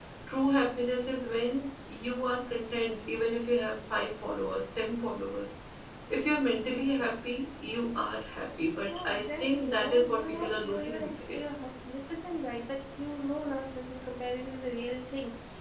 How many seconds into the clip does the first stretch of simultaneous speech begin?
8.9 s

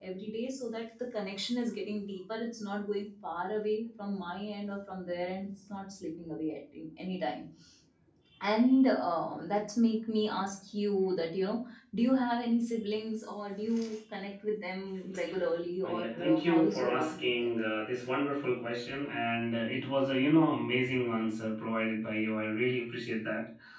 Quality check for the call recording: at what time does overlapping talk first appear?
15.8 s

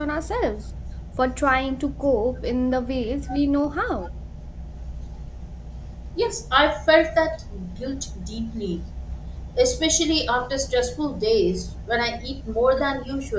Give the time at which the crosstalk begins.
none

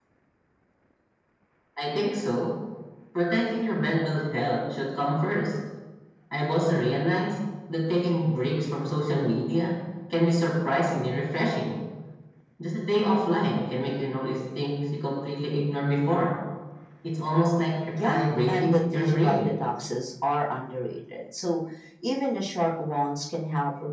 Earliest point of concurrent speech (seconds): 17.9 s

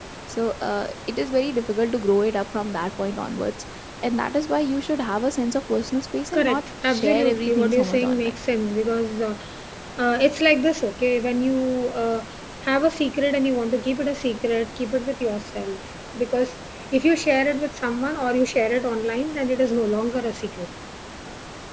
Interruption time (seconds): 6.3 s

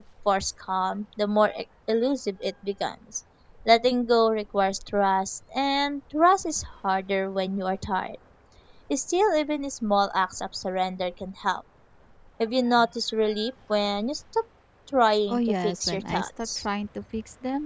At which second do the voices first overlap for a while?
15.3 s

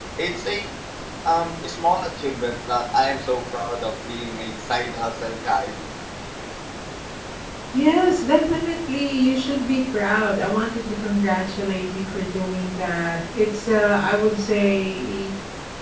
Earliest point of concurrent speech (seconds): none

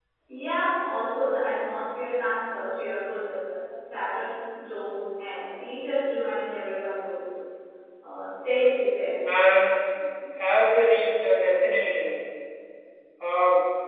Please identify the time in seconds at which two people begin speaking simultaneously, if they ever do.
none

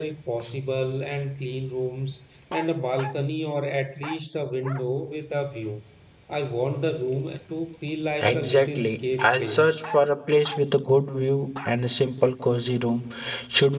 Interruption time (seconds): 8.2 s

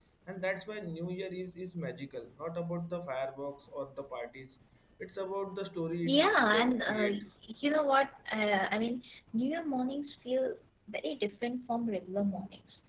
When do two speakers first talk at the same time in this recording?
6.0 s

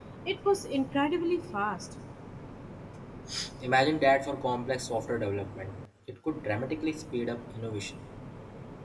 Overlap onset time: none

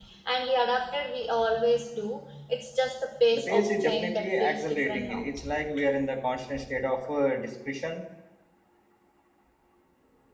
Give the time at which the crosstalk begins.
3.3 s

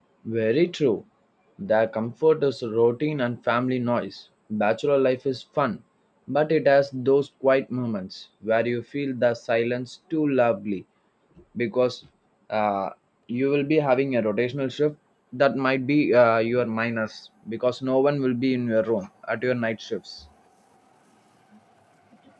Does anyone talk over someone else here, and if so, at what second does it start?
none

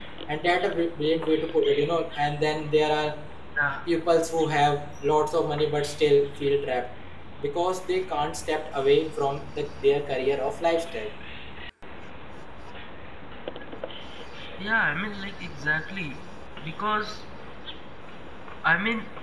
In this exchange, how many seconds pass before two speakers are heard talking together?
none

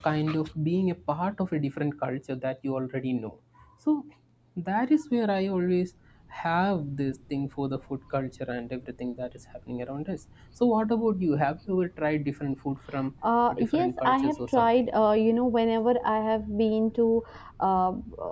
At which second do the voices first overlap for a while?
13.5 s

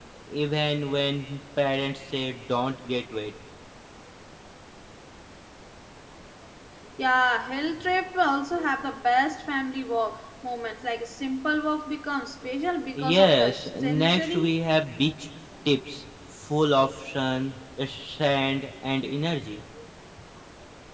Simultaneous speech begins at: 13.0 s

